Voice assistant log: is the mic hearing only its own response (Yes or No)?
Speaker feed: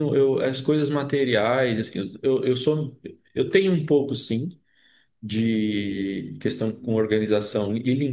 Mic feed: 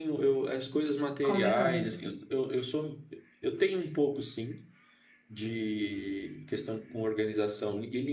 No